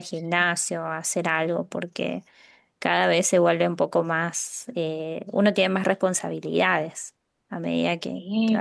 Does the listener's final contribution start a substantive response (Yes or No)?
Yes